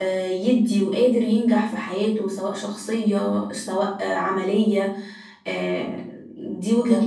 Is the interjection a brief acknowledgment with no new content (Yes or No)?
No